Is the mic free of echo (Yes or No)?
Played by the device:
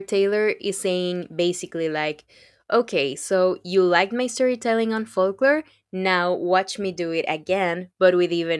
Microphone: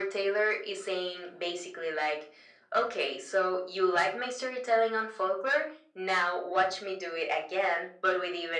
No